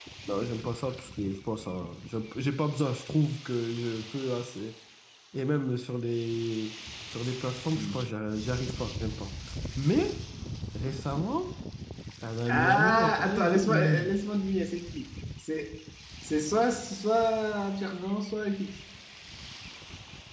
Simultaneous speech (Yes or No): Yes